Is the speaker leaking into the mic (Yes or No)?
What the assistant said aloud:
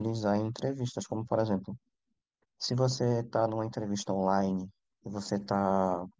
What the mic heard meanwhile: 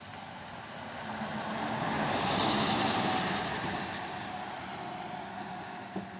No